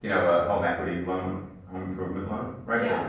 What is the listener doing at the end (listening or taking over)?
listening